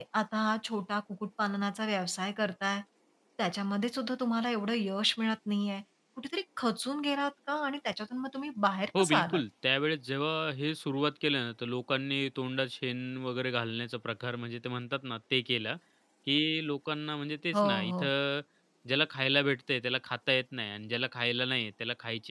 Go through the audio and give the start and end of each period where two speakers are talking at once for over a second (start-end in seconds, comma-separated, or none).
none